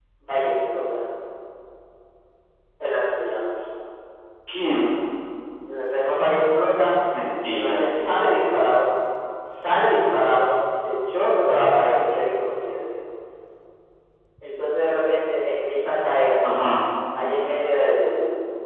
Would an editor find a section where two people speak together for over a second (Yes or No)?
No